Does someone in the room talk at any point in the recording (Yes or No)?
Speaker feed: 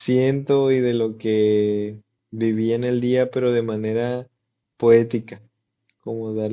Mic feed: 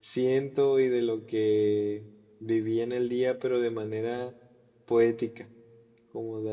No